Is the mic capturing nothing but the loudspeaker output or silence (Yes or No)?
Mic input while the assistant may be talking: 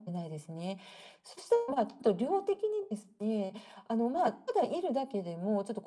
Yes